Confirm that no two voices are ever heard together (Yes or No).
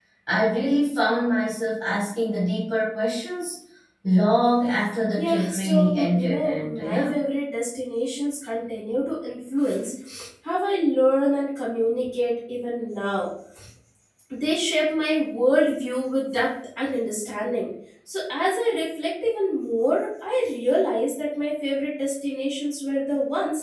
No